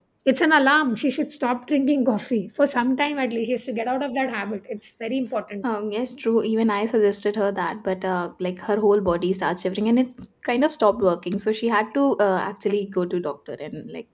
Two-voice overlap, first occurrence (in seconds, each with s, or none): none